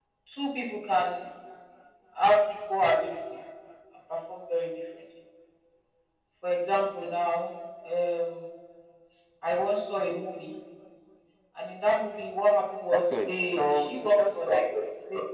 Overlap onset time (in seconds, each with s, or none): 12.9 s